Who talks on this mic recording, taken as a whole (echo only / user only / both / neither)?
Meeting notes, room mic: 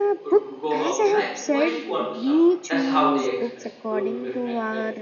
both